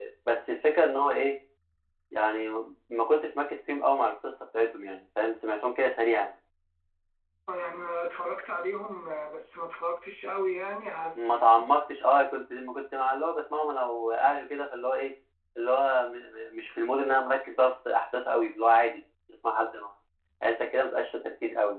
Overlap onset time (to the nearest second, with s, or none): none